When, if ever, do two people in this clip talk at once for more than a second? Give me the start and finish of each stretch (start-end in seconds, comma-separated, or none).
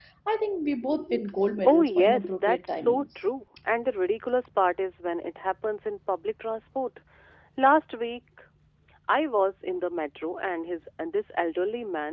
1.6-3.0